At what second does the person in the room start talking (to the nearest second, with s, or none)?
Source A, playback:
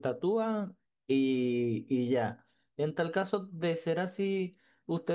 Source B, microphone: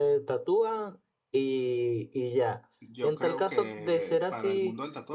3 s